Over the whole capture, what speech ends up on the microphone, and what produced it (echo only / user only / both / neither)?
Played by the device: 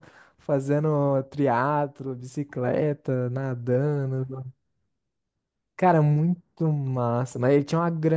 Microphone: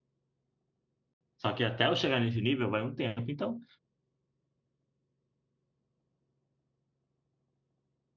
user only